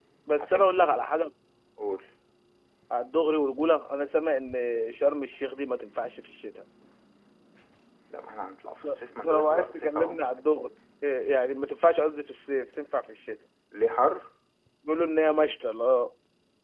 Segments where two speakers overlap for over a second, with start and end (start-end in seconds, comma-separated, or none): 8.8-10.2